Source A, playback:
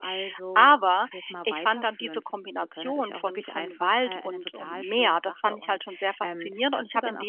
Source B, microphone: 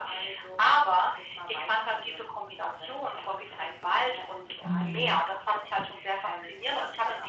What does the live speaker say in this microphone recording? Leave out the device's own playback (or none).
Mhm.